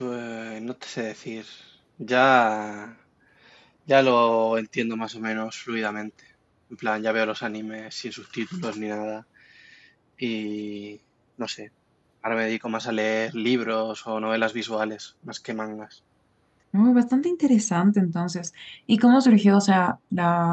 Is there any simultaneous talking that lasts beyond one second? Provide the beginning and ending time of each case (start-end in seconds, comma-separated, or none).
none